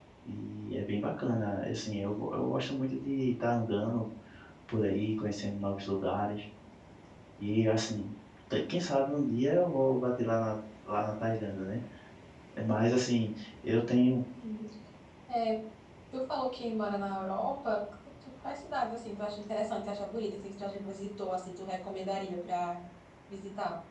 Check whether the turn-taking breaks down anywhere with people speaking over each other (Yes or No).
No